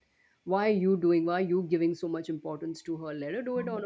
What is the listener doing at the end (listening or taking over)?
listening